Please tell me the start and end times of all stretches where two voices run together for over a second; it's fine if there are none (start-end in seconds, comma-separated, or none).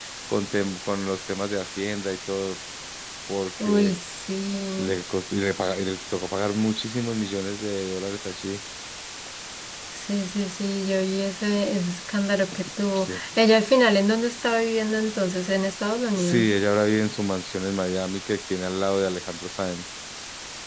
none